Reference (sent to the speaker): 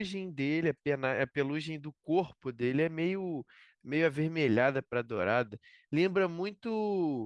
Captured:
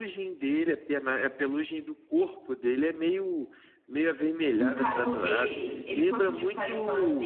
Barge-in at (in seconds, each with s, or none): 4.5 s